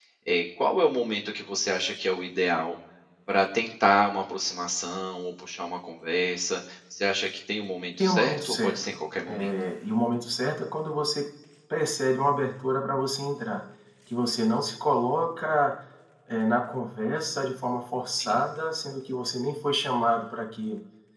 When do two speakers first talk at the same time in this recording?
8.0 s

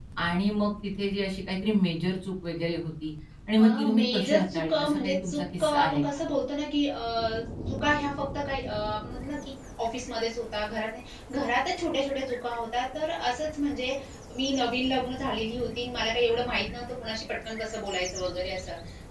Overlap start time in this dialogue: 3.6 s

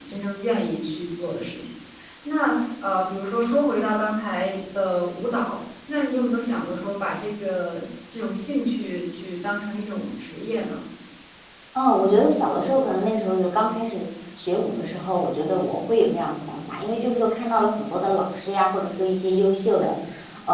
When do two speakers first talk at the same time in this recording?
none

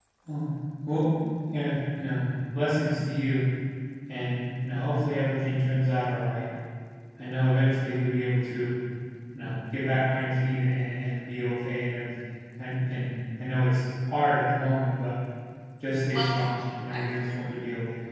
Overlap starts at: 16.1 s

